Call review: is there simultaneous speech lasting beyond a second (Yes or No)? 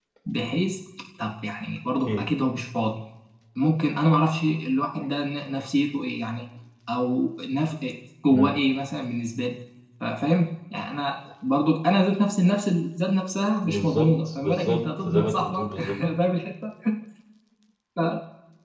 Yes